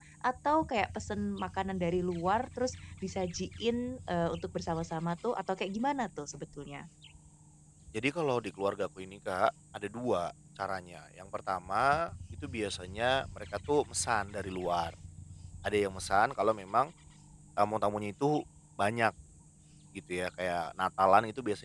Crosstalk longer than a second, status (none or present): none